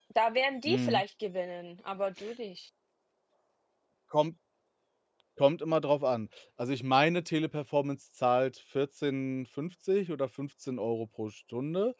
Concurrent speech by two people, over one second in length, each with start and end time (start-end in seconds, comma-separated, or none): none